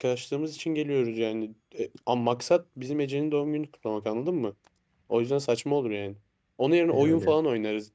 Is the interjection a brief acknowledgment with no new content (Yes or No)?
Yes